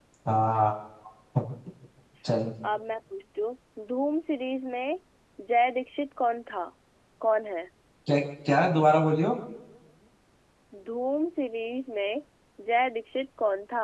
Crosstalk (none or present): none